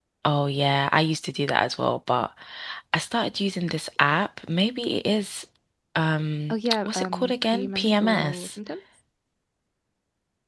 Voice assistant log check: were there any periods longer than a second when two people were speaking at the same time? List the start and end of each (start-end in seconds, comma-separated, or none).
6.5-8.5